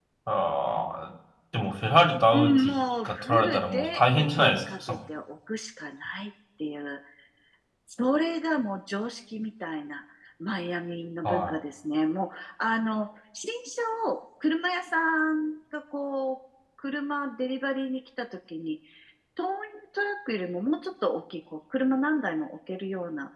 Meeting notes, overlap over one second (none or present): present